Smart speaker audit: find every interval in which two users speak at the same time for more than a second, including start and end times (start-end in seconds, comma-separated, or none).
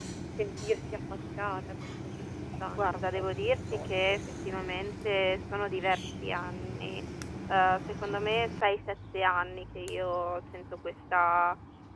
2.8-4.2